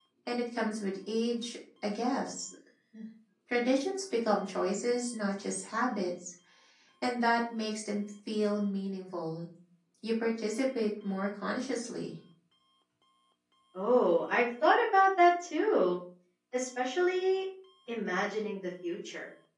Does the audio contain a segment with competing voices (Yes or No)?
No